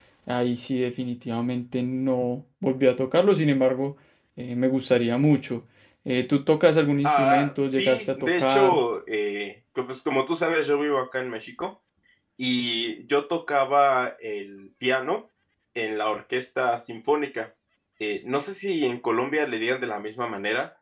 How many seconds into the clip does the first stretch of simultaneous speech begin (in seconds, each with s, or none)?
7.0 s